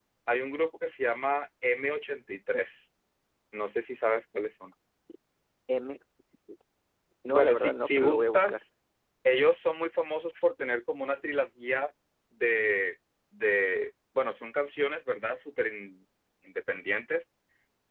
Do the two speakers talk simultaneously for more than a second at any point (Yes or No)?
Yes